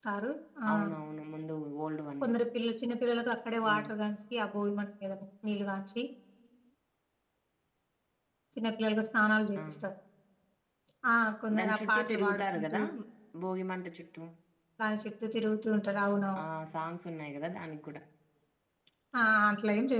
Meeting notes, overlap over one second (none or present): present